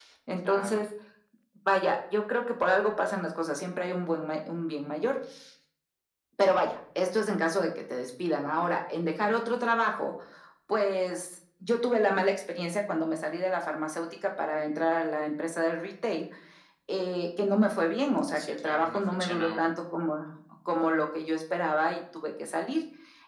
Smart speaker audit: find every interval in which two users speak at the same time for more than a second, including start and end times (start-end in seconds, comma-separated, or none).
18.3-19.6